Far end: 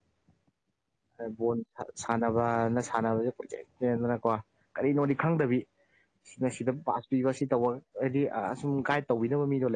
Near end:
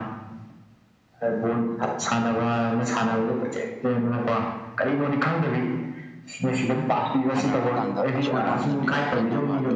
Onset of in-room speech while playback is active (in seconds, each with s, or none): 7.3 s